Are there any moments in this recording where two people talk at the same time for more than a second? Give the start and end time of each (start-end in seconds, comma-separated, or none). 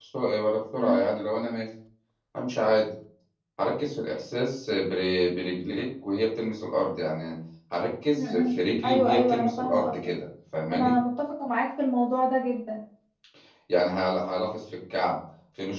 8.2-10.0